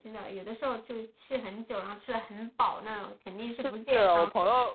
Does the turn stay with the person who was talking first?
No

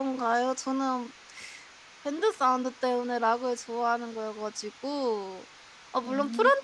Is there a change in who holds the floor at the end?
No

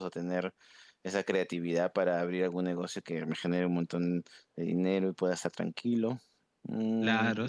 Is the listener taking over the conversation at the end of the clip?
Yes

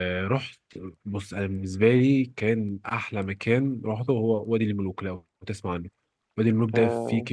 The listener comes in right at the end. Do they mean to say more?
No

